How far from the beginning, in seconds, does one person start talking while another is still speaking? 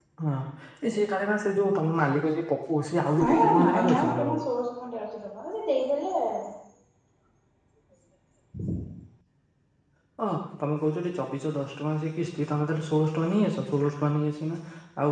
3.2 s

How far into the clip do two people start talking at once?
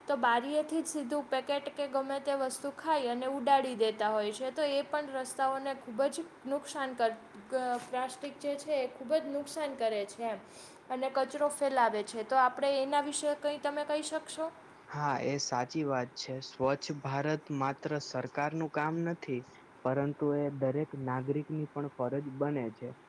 none

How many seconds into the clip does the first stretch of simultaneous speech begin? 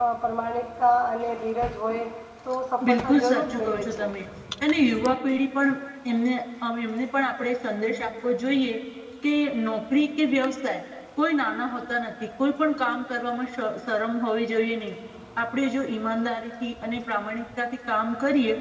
2.8 s

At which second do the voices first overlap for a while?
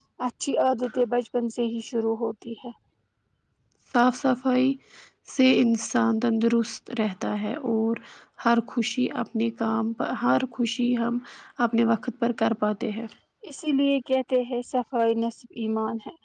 none

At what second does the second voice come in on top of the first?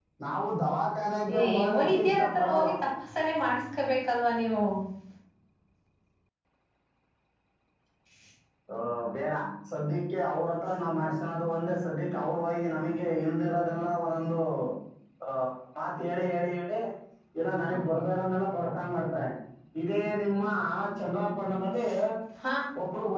1.3 s

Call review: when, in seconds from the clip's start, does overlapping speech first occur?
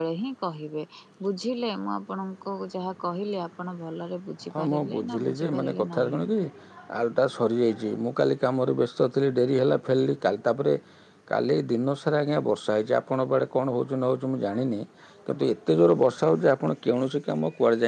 4.5 s

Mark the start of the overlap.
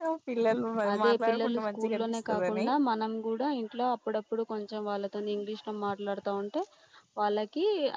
1.0 s

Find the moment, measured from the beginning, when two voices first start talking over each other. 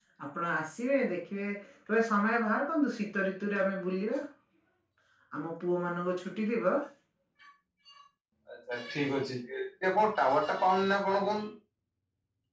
none

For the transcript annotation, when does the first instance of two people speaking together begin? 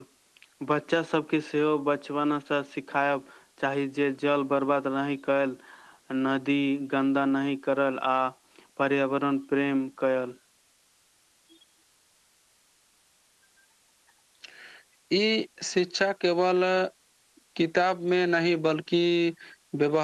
none

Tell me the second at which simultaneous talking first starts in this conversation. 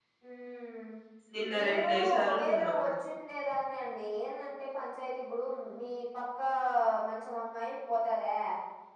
1.6 s

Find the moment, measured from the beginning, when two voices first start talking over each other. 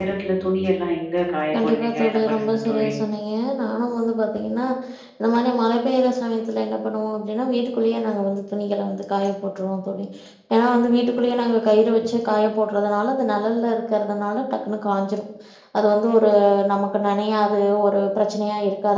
1.5 s

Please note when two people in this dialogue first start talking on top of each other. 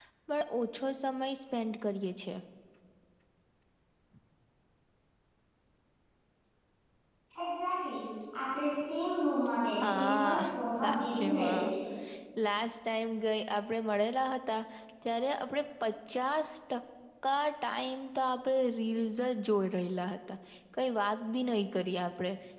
9.8 s

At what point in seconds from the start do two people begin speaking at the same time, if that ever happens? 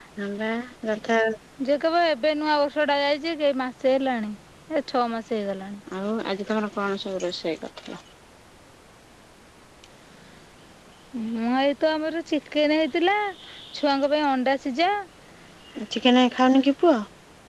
none

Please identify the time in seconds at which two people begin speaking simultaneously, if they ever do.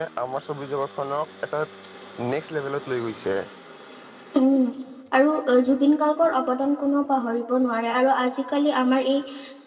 none

